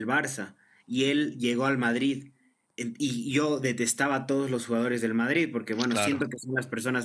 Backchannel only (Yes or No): Yes